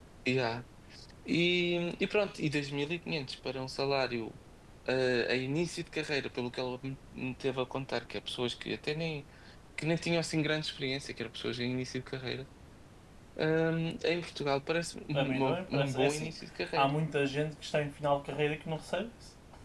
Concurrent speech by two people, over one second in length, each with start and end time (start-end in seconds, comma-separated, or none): 15.1-17.0